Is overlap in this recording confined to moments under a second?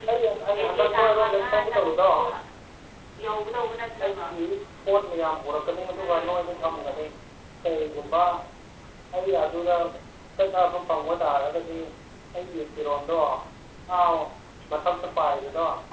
No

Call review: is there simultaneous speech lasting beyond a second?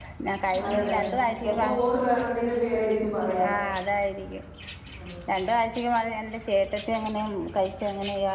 No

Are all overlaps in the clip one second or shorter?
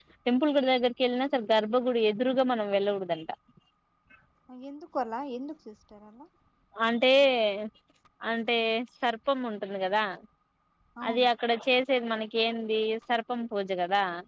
Yes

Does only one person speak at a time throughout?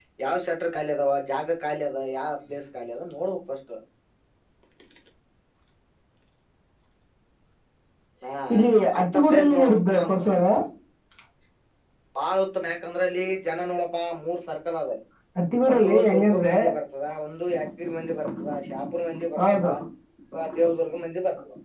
No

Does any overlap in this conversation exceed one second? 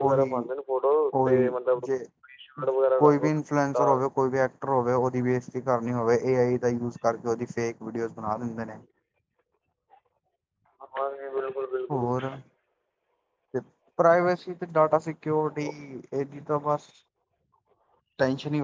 No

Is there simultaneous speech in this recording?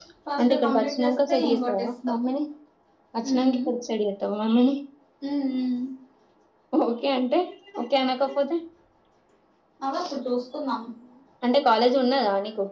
Yes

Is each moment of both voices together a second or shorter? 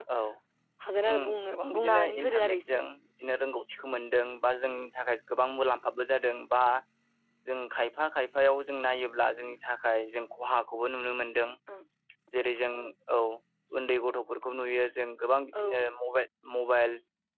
No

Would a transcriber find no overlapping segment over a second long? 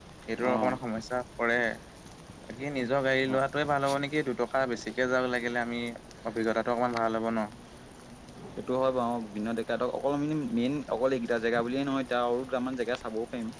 Yes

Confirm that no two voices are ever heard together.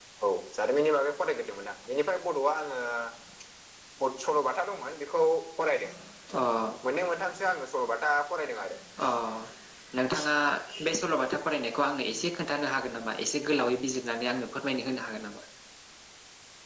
Yes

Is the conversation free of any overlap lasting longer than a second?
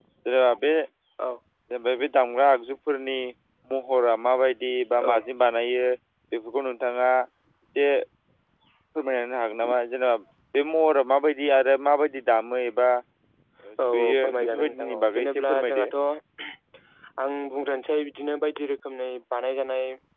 No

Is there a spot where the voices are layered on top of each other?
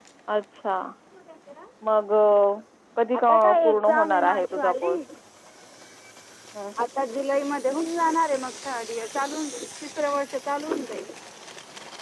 Yes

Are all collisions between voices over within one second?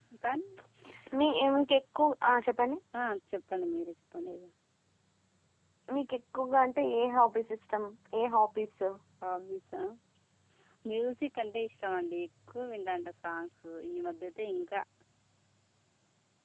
Yes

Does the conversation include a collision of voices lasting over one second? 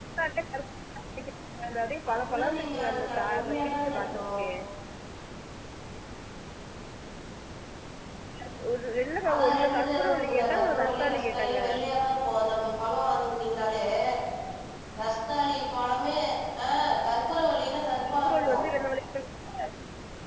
Yes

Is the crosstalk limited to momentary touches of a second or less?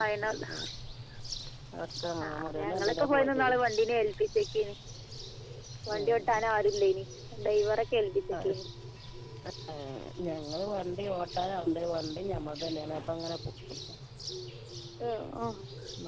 No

